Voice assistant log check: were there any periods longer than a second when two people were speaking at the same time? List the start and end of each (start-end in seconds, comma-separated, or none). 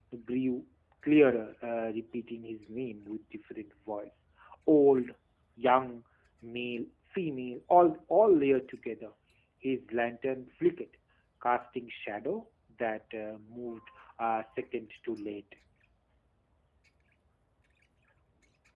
none